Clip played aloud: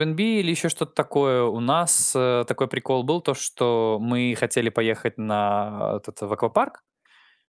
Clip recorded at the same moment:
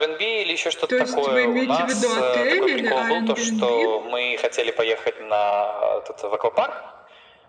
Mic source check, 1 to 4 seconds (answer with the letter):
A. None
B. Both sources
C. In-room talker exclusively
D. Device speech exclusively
B